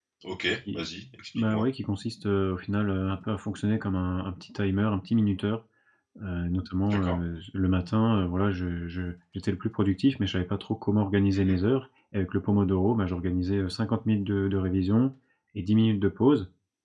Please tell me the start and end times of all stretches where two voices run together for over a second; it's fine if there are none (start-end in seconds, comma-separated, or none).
none